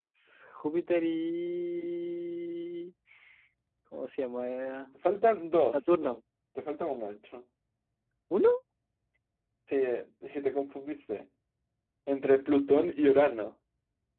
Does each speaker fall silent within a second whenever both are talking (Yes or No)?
Yes